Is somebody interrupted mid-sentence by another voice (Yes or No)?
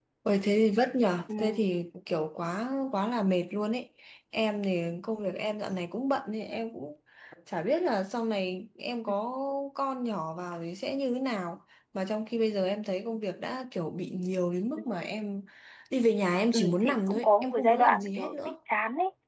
Yes